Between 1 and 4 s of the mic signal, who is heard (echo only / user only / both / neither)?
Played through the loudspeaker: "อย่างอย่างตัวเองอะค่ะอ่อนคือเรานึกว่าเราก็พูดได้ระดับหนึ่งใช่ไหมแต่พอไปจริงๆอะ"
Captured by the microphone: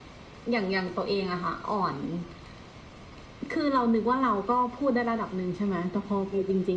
echo only